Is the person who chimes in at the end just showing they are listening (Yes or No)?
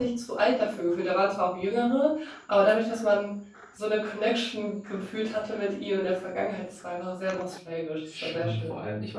No